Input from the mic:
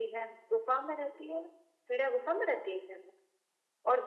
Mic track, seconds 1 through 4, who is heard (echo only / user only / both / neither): echo only